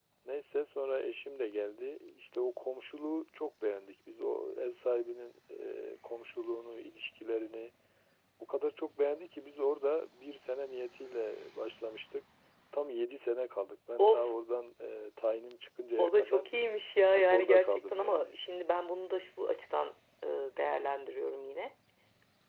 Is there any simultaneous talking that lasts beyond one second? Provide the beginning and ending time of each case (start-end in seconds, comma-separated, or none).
17.1-18.4